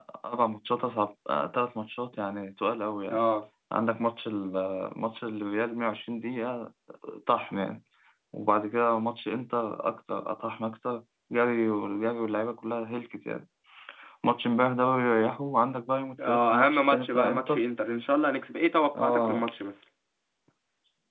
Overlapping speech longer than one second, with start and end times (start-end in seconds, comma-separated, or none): 16.3-17.6